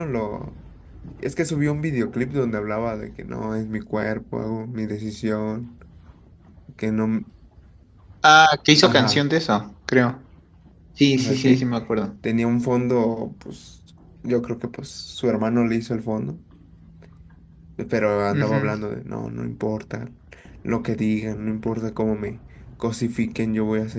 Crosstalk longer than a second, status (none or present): none